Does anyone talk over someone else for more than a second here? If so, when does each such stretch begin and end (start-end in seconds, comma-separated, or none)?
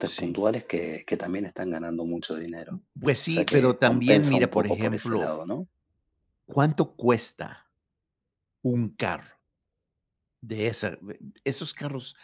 3.3-5.3